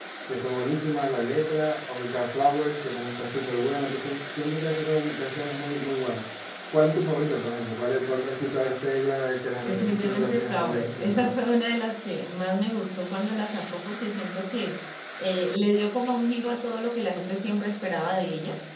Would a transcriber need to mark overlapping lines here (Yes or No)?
Yes